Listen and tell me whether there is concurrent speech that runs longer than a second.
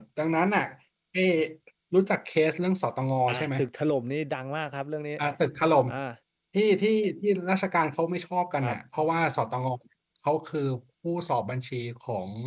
No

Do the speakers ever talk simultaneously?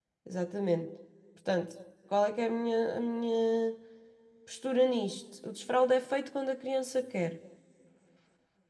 No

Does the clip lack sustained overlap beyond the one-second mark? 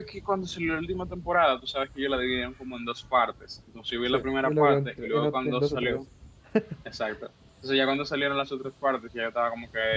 No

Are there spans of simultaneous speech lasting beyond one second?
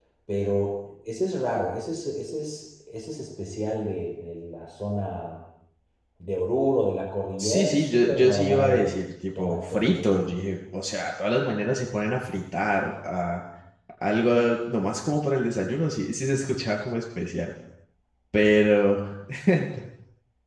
Yes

